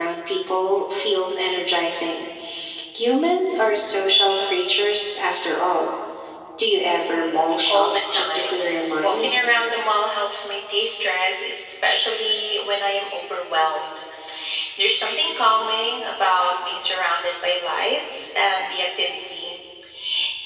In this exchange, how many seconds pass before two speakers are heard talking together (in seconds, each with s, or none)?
7.5 s